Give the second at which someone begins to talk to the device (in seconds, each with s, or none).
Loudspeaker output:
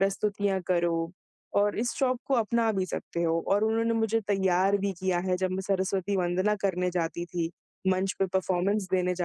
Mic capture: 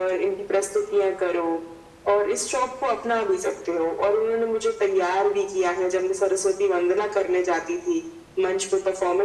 none